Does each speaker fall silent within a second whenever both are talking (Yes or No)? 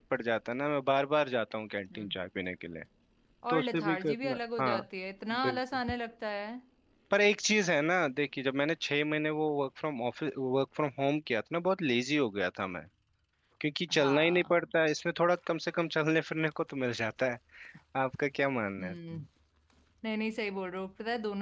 No